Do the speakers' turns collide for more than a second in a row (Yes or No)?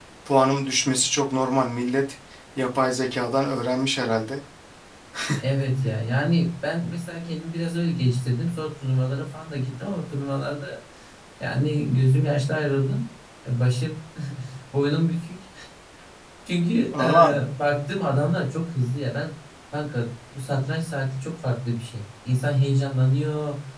No